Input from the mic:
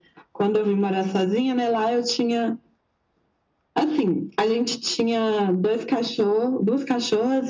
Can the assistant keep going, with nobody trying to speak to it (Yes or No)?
Yes